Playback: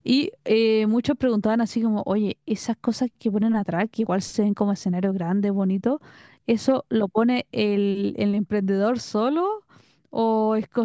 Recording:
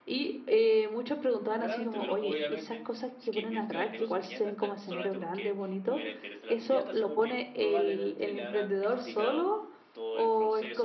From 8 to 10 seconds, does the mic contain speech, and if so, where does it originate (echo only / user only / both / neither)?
both